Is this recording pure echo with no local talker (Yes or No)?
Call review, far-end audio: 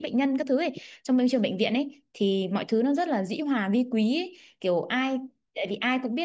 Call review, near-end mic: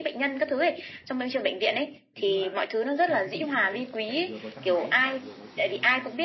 No